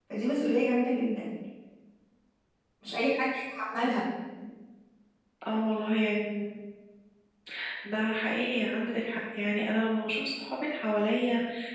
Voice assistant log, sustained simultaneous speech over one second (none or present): none